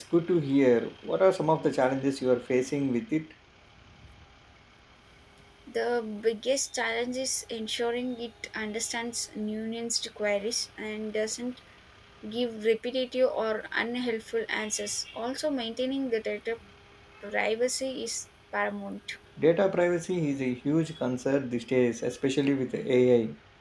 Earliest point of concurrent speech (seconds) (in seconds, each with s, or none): none